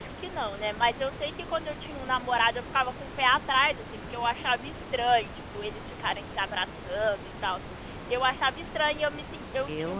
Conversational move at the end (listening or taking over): listening